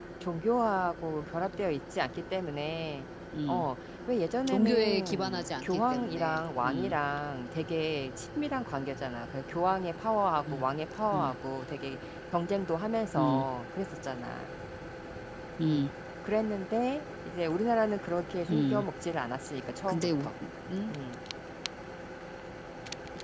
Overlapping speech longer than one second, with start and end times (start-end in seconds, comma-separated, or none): 4.5-6.9